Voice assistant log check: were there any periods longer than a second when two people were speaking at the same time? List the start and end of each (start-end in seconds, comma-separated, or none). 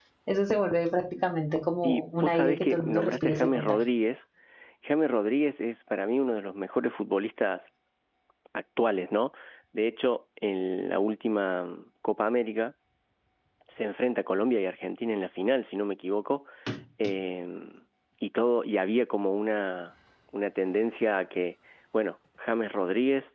1.8-3.8